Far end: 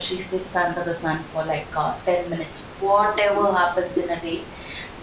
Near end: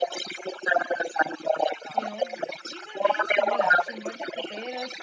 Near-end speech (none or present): present